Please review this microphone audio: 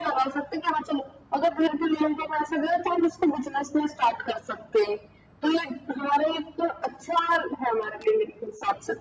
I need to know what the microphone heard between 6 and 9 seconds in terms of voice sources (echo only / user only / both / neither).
echo only